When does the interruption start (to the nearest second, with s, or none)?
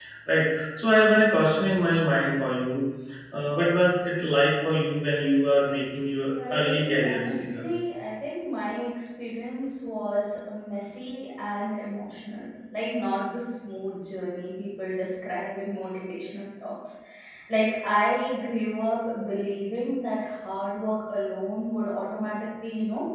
6 s